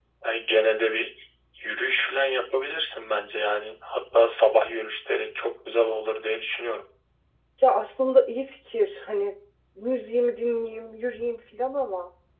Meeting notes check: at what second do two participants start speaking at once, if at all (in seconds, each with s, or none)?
none